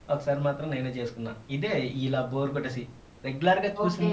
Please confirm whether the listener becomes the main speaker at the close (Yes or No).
No